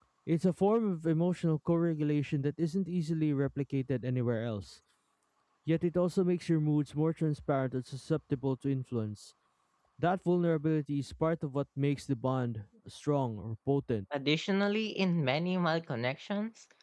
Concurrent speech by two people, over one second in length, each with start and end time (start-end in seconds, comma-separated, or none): none